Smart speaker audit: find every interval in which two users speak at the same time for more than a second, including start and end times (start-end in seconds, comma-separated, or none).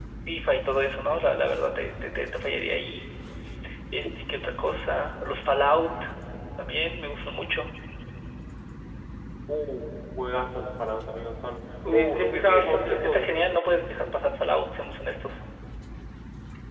11.8-13.3